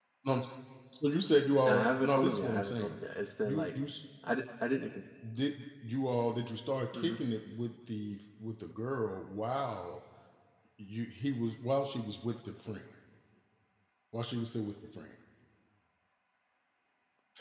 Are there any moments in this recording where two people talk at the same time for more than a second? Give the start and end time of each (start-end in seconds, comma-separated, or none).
1.6-3.0